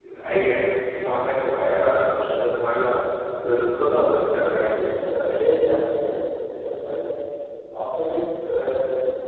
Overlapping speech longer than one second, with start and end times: none

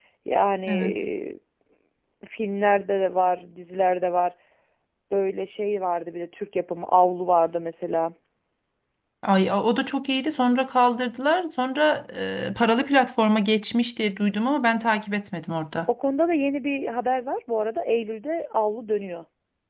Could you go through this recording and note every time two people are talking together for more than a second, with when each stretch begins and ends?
none

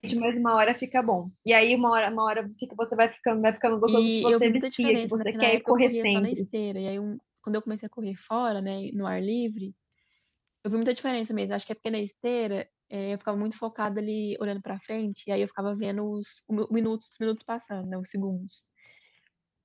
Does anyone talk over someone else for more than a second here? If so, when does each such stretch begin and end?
3.9-6.4

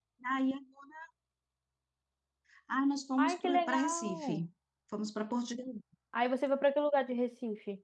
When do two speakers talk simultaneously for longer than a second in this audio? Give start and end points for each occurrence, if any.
3.2-4.5

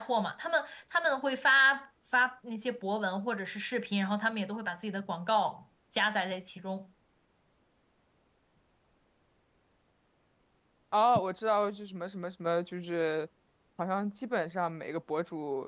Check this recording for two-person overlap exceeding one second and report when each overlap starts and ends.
none

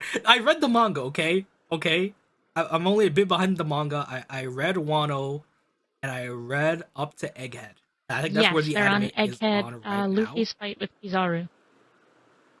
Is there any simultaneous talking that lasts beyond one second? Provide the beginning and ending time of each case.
8.3-10.4

